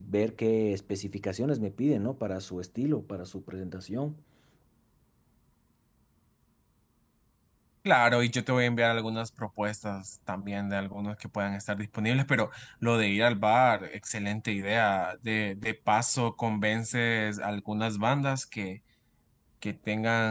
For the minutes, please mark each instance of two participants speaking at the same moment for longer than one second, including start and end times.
none

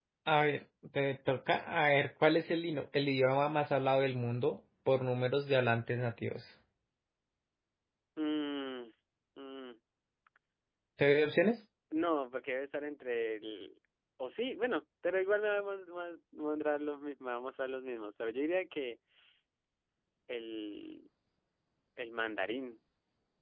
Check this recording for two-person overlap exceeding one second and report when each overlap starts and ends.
none

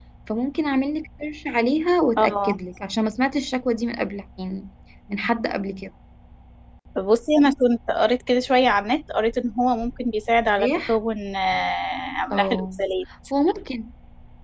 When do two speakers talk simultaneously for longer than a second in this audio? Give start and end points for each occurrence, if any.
none

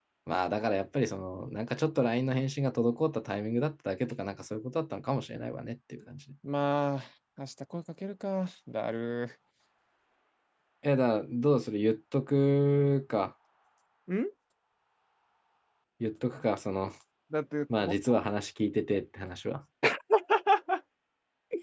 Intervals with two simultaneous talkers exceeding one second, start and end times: none

